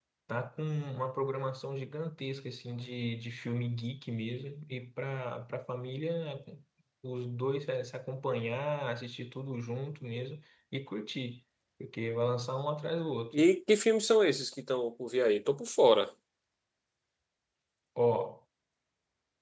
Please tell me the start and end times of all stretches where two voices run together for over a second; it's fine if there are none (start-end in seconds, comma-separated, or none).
none